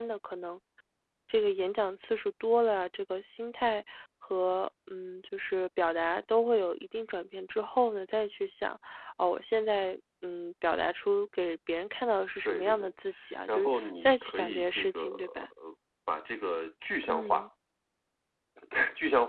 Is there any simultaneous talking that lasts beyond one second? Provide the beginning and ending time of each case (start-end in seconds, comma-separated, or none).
13.5-15.4